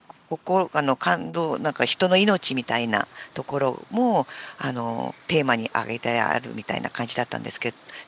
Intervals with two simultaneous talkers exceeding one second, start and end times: none

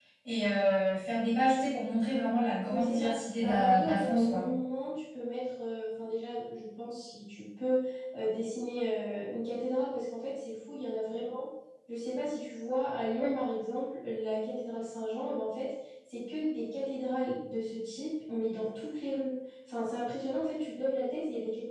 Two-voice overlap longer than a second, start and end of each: 2.7-4.4

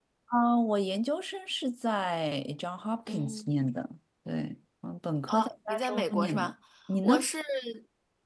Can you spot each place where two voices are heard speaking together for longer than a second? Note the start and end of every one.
5.3-6.5

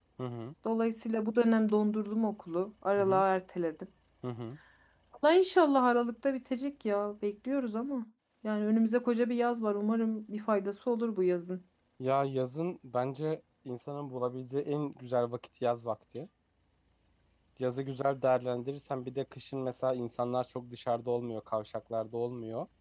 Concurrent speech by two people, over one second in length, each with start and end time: none

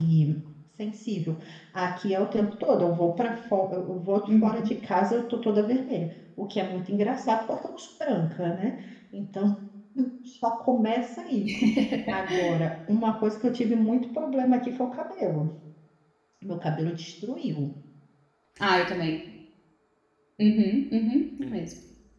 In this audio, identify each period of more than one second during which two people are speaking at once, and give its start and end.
none

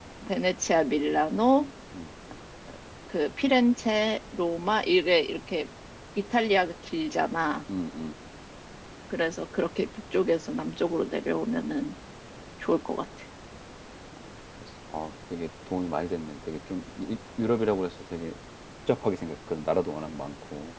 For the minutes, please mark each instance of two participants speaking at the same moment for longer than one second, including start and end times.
none

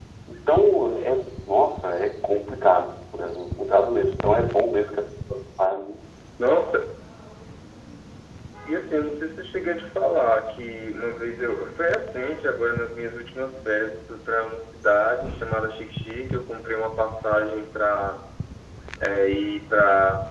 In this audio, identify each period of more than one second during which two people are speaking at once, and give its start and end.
none

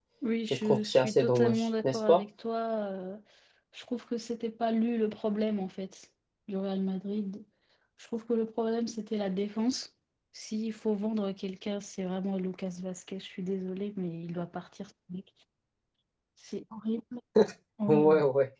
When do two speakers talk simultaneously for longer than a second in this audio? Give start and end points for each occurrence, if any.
0.5-2.2

